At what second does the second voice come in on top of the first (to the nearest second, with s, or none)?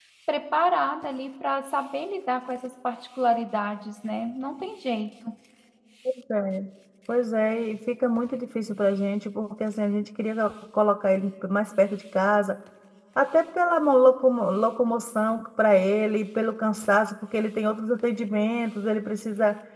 none